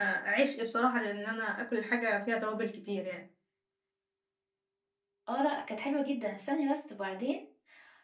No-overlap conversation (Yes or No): Yes